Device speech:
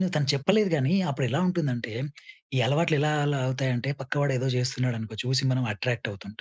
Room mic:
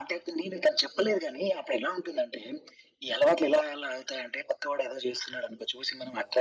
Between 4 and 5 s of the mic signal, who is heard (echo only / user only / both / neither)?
echo only